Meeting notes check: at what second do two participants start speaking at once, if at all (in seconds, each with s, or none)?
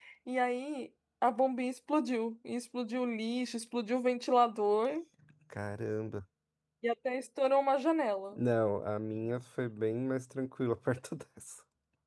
none